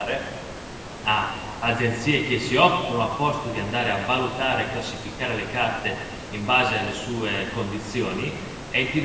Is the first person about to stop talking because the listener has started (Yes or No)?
Yes